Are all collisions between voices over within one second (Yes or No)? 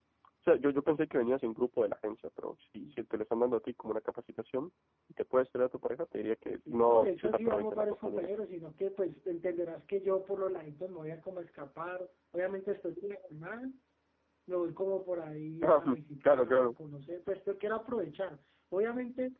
No